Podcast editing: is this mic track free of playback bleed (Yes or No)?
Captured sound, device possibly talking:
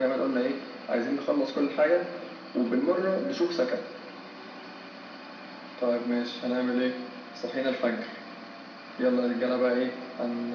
No